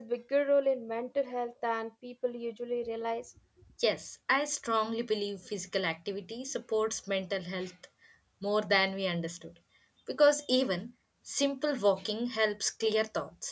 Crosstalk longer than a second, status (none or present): none